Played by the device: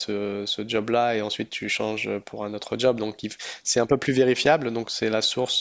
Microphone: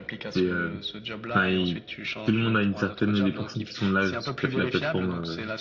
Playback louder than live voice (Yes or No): No